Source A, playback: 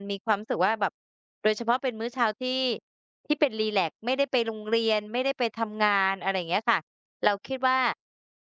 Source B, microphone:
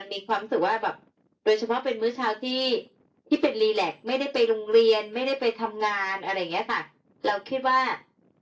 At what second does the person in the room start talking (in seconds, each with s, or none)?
none